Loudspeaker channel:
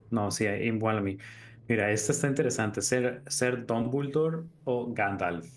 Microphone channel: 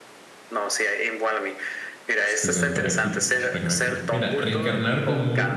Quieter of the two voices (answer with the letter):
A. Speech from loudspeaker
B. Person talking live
A